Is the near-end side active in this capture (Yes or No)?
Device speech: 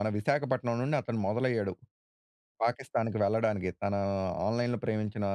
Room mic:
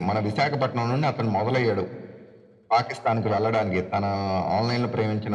No